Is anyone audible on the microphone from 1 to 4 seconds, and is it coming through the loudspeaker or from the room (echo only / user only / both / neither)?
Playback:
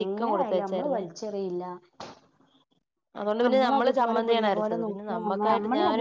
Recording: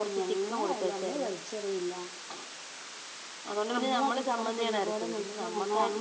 echo only